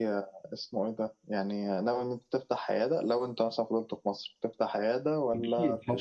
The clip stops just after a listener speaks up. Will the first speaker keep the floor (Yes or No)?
No